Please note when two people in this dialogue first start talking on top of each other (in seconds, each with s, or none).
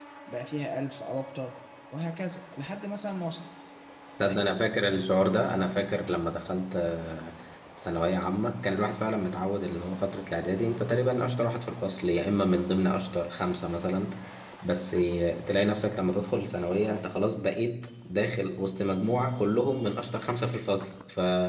none